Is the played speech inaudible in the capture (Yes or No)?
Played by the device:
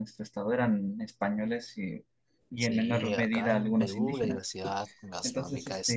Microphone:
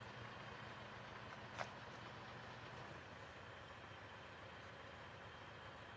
Yes